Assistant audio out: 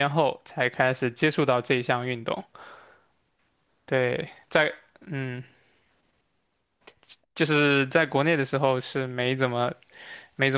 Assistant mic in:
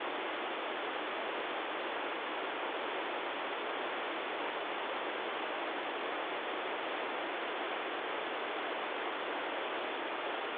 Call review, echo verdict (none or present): none